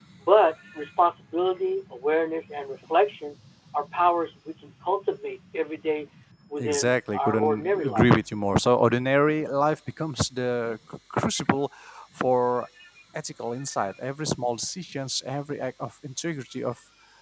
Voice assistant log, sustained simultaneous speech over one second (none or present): present